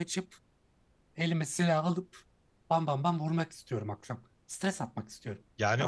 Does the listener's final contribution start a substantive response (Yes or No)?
Yes